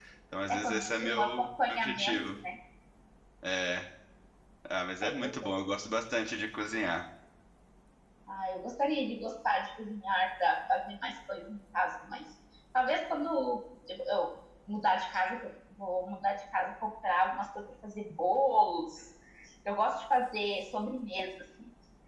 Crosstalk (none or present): present